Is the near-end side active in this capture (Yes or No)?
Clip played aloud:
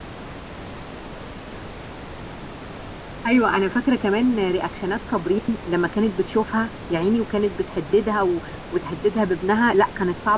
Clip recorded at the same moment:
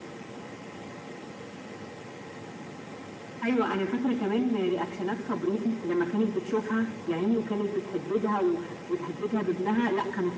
No